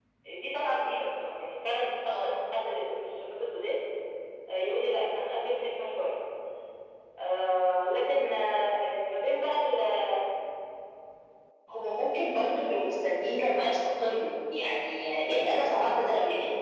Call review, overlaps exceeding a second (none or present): none